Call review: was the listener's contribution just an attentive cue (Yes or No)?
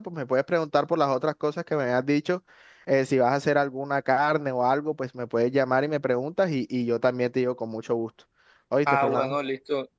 No